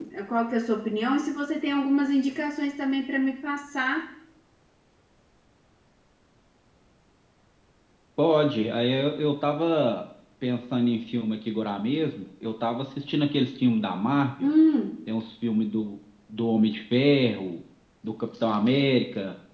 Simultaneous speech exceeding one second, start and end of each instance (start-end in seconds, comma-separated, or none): none